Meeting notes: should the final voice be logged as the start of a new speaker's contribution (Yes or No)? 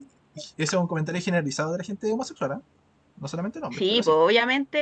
Yes